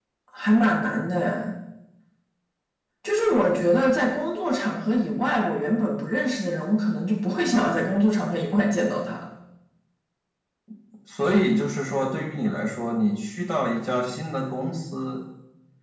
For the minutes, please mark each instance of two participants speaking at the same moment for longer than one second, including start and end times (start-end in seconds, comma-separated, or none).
none